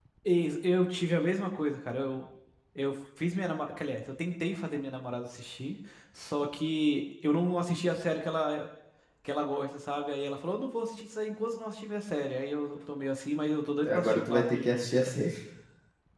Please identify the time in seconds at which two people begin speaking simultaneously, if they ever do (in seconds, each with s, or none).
13.8 s